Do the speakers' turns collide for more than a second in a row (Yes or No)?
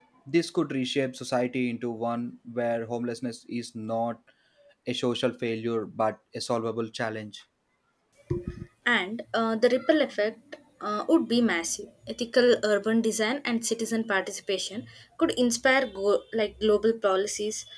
No